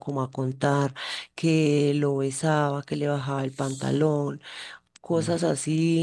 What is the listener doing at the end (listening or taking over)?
listening